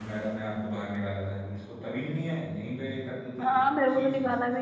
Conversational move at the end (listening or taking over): taking over